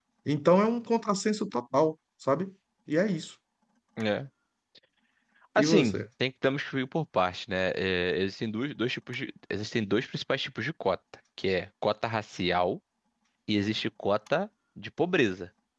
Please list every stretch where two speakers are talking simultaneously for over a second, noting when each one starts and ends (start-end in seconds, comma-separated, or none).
none